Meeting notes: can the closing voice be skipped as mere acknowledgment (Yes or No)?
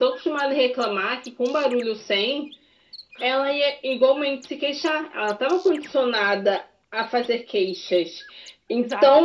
Yes